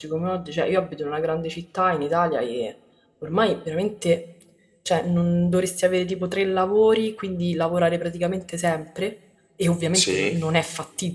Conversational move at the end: listening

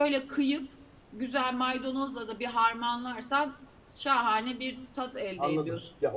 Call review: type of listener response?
taking over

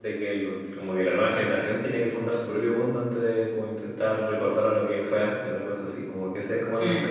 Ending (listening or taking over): listening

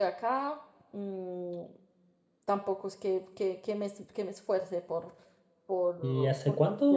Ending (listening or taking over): taking over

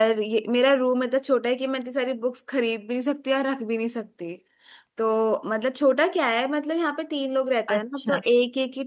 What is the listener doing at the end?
listening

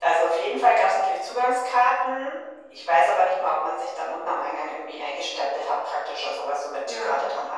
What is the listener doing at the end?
listening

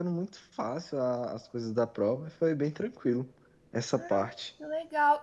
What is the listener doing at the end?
taking over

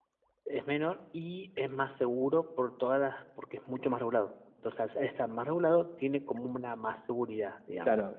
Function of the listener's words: taking over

